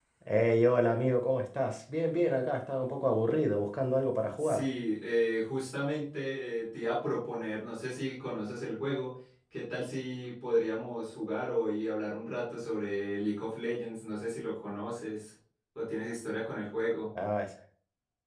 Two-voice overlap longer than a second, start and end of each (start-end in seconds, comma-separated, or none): none